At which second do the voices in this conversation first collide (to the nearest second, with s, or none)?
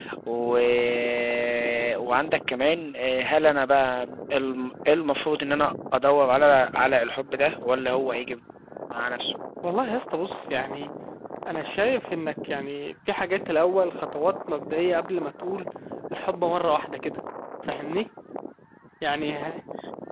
none